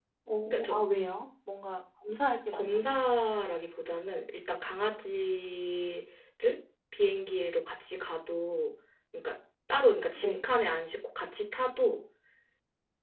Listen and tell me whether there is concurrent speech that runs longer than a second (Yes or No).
No